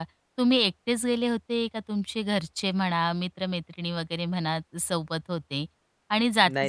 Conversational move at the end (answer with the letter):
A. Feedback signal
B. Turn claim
A